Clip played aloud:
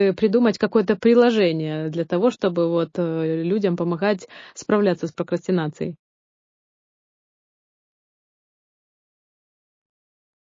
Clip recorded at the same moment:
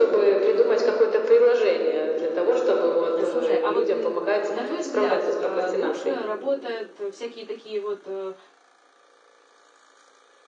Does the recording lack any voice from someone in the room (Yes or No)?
No